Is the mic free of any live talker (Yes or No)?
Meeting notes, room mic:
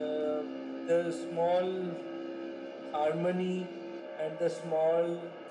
Yes